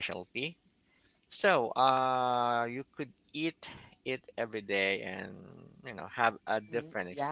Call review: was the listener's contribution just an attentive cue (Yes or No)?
No